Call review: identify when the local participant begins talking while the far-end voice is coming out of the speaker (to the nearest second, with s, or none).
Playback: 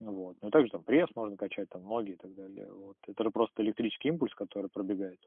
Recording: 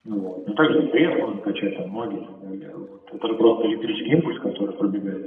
none